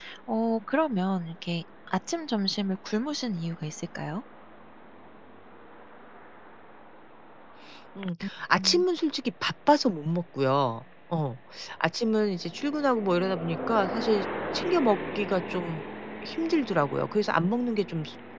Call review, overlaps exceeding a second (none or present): none